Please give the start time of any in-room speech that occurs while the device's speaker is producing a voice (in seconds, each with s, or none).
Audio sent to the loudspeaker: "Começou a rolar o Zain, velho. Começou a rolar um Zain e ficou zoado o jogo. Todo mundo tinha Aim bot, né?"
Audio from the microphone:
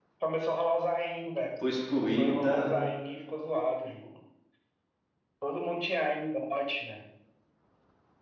1.6 s